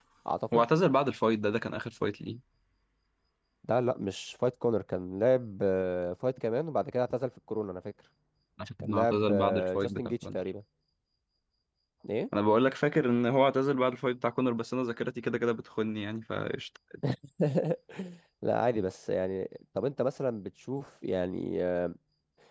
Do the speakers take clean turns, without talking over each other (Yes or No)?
No